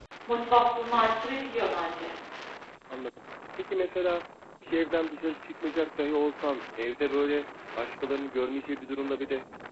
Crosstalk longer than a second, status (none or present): none